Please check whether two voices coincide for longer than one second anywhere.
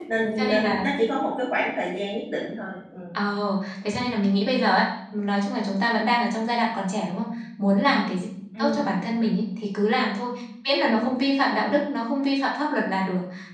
No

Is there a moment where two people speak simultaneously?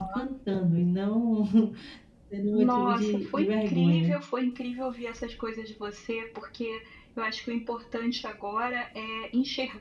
Yes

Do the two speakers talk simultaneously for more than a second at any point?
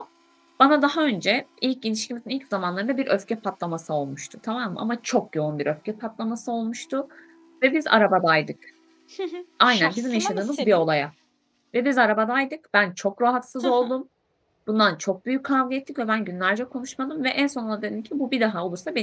Yes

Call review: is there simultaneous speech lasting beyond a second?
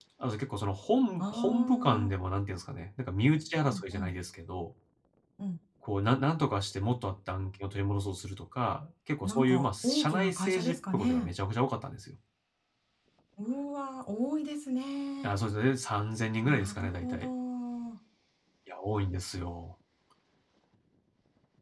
Yes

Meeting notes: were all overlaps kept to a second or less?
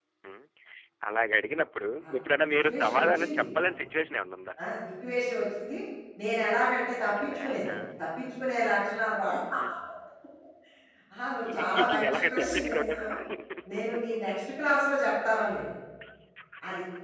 No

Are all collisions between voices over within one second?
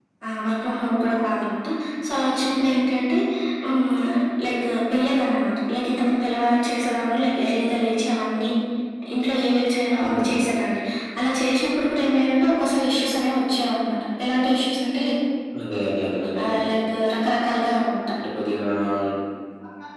Yes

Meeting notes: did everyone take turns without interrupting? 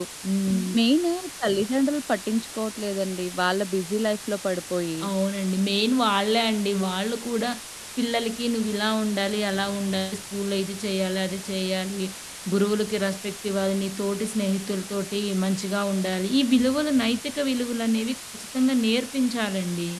Yes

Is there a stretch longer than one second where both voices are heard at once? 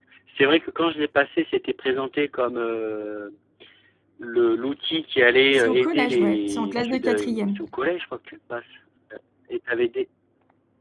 Yes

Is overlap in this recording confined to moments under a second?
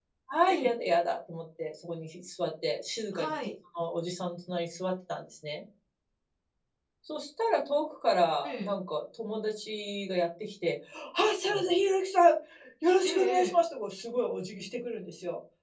Yes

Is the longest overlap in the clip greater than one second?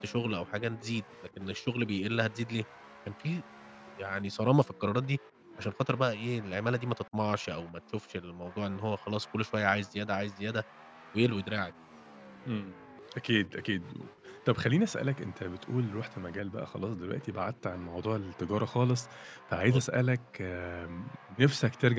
No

